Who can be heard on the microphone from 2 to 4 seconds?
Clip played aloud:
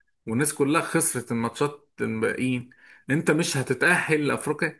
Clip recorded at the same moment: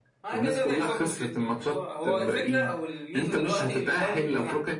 both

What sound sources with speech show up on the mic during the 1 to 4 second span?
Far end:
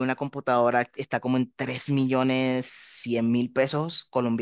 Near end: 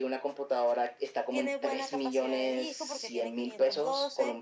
both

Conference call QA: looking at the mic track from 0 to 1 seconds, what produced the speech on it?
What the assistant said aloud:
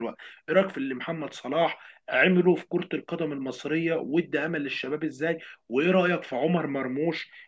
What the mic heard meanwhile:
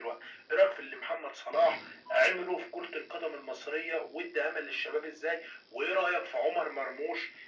echo only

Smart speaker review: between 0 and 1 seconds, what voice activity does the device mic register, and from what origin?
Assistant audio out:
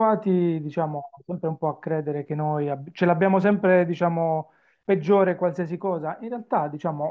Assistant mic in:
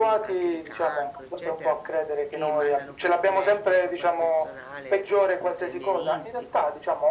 both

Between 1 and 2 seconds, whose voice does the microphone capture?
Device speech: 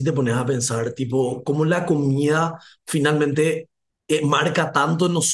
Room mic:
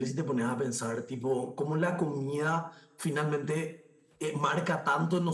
echo only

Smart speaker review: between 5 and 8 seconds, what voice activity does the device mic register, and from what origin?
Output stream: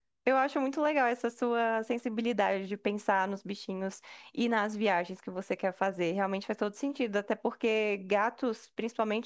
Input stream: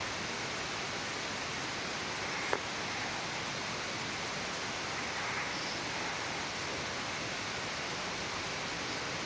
neither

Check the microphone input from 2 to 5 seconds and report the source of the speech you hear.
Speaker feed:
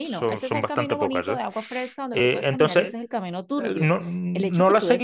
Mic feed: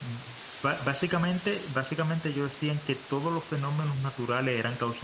user only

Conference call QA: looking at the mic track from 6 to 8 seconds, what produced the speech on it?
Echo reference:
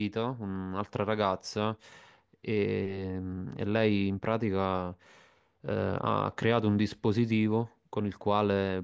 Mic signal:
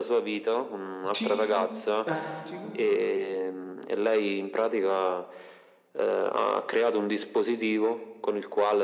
echo only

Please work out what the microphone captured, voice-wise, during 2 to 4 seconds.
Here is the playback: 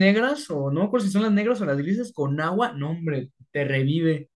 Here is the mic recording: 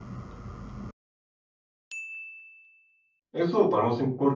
user only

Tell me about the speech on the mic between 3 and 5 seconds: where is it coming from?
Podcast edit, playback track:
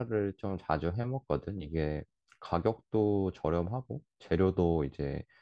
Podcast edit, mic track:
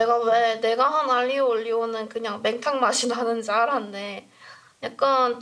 user only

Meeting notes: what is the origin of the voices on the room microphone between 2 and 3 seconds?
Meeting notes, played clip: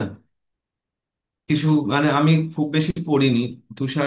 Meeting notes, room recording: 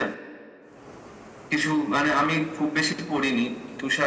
echo only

